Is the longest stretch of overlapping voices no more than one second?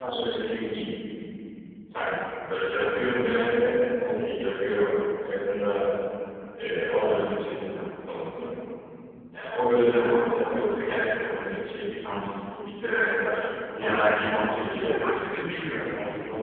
No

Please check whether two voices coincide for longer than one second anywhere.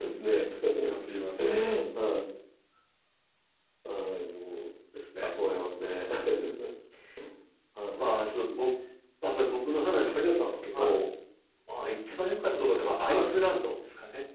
Yes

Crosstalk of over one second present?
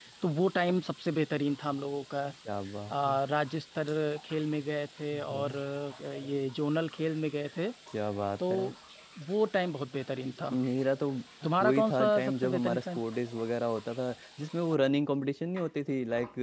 Yes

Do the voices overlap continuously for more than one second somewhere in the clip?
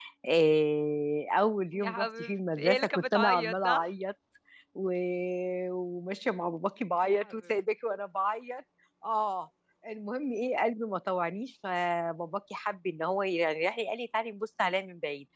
Yes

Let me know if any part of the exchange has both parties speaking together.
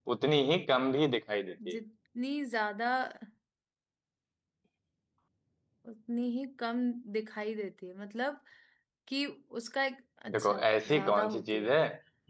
Yes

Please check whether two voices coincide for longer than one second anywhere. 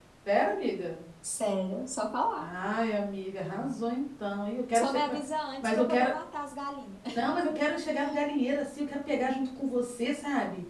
No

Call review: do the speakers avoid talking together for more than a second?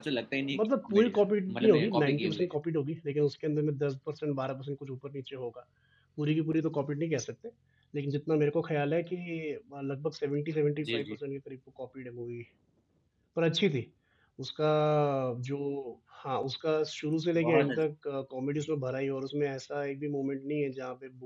No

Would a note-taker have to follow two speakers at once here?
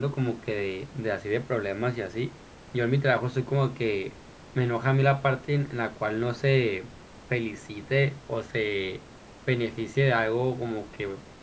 No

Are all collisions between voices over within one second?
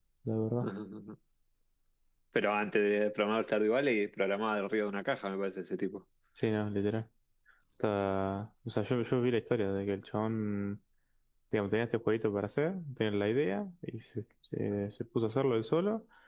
Yes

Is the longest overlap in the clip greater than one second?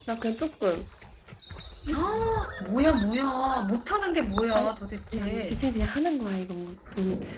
No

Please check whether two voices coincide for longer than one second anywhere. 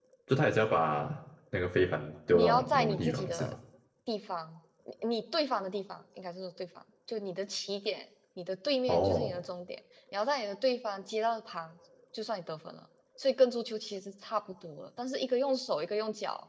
Yes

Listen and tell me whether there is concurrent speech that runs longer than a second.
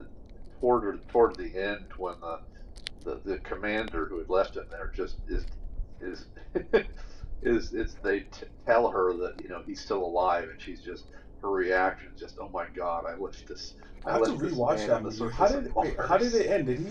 Yes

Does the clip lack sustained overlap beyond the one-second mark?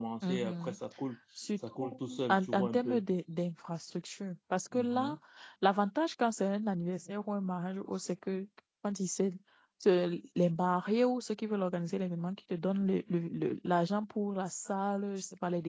No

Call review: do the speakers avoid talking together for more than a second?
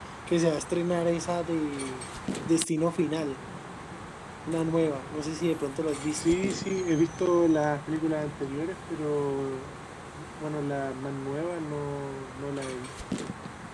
Yes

